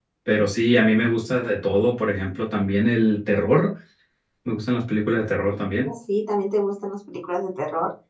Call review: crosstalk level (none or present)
none